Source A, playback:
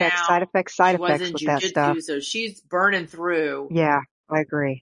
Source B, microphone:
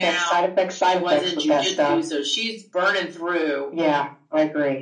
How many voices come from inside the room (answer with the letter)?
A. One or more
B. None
B